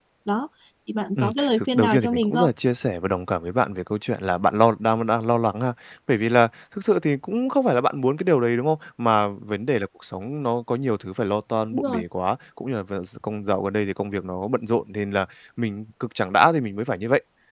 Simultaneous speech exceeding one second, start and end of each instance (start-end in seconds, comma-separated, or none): 1.2-2.5